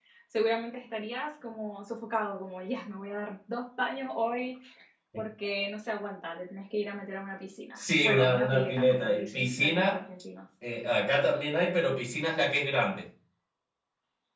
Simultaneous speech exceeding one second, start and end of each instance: 7.8-10.0

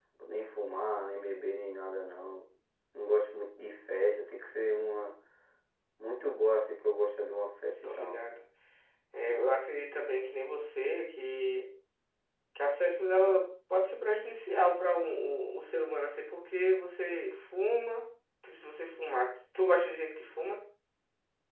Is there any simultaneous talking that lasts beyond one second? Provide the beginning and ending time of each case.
none

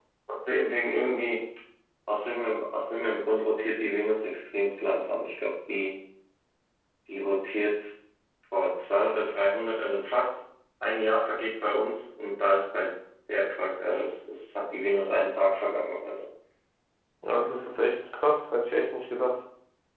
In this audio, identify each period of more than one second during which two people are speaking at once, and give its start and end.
none

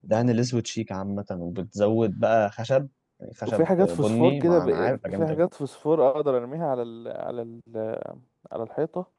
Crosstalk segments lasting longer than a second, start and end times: 3.5-5.4

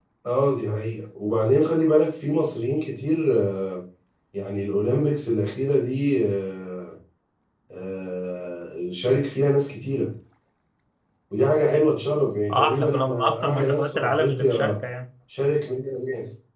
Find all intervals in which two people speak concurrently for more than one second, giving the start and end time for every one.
12.5-14.8

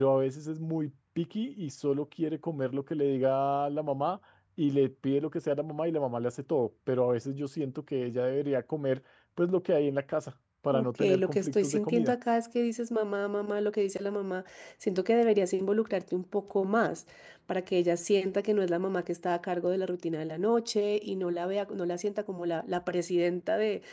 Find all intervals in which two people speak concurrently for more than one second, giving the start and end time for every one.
10.8-12.1

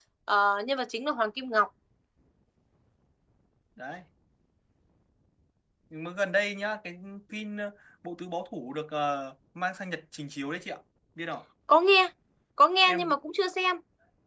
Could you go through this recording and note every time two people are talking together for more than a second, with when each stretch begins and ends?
none

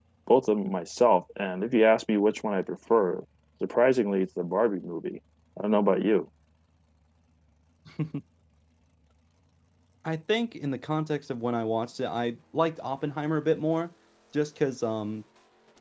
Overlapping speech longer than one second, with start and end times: none

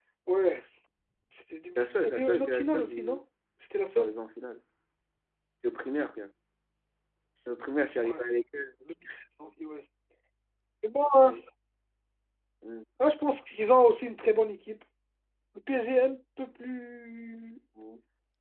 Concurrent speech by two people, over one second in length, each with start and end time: 1.8-3.2

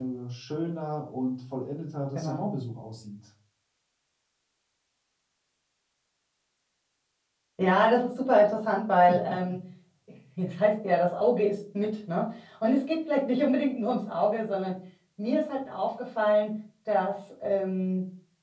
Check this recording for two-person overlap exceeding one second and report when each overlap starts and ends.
none

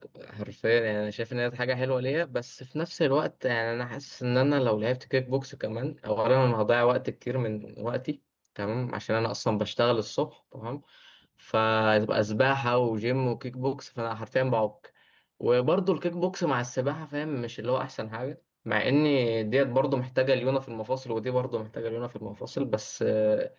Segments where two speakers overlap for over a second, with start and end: none

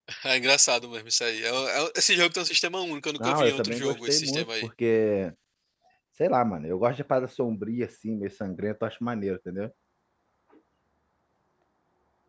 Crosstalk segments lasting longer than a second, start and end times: 3.2-4.7

